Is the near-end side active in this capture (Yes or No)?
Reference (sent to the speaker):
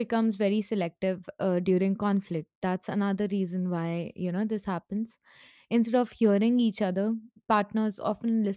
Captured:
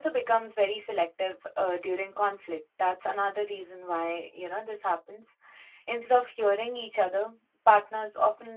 No